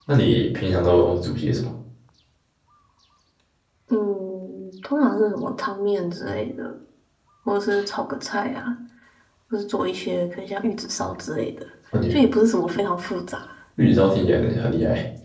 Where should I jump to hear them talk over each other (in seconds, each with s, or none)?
none